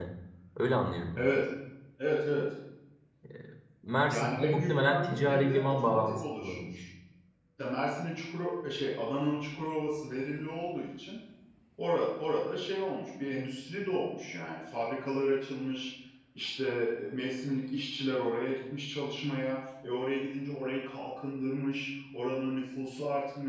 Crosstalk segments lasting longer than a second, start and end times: 4.1-6.7

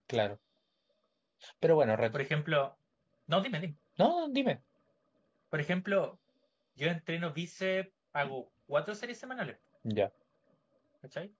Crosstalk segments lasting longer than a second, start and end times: none

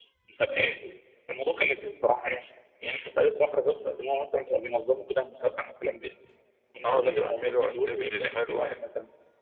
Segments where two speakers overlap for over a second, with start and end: 6.8-8.8

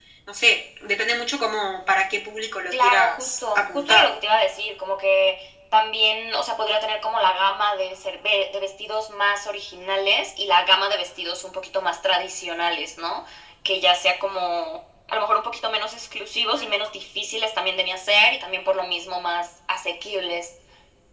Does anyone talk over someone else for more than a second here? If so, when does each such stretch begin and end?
2.7-4.1

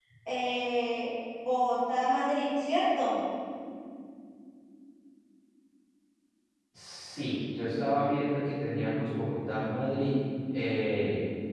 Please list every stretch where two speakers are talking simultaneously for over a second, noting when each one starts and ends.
none

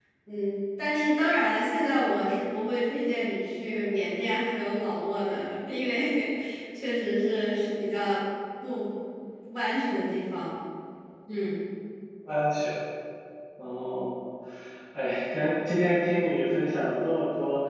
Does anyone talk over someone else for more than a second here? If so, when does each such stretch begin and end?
none

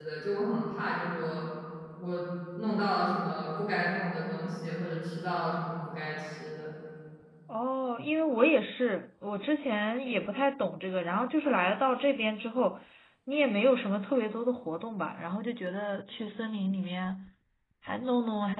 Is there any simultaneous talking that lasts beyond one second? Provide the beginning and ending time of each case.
none

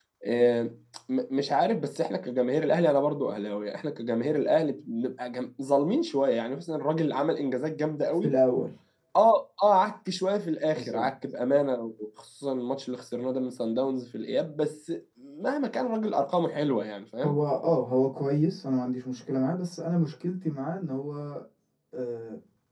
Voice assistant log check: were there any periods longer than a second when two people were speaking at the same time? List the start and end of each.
none

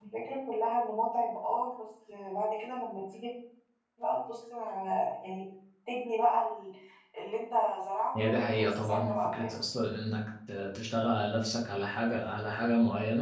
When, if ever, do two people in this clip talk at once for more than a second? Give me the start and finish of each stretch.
8.2-9.7

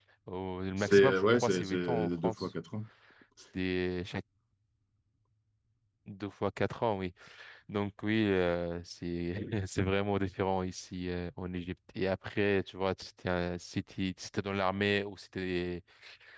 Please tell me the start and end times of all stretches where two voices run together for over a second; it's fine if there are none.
0.8-2.5

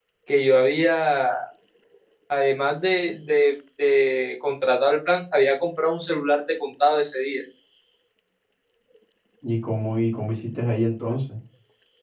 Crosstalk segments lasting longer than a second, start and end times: none

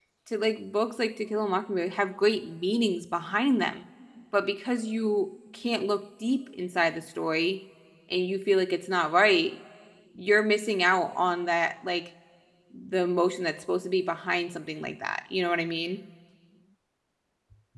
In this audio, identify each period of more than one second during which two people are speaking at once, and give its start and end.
none

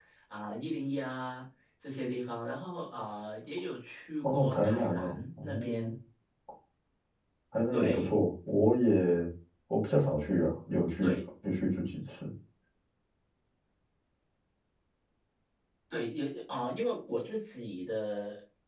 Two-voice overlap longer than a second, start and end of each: 4.3-5.9

